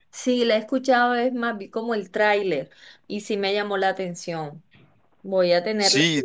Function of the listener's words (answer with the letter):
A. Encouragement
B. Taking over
B